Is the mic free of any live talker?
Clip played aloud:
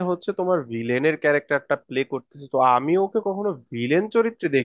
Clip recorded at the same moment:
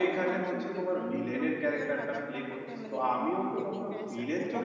No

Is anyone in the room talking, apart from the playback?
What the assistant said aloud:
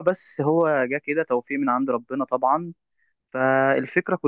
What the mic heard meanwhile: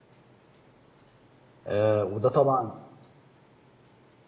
Yes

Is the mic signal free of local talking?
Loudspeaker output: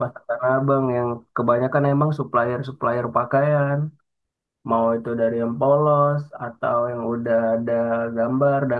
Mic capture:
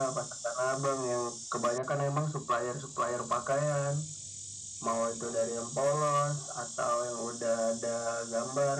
Yes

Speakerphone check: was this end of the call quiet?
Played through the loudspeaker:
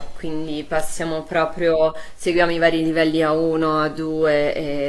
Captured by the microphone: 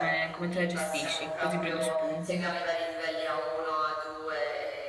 No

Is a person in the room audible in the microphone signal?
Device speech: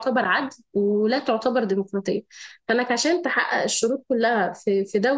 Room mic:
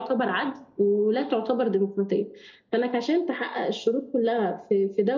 No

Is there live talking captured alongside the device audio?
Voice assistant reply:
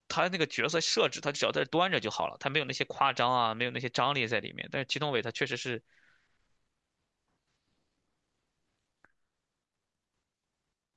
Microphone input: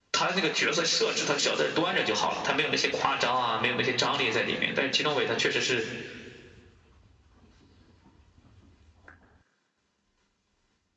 No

